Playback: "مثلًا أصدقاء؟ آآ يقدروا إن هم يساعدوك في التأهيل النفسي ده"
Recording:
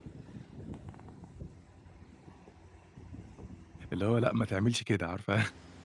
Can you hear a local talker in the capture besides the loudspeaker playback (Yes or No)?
Yes